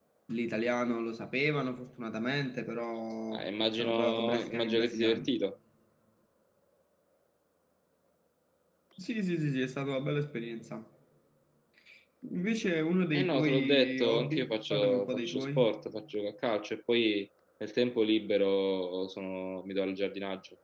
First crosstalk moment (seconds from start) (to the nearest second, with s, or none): 3 s